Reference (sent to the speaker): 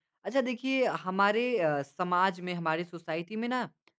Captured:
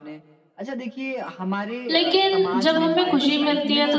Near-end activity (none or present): present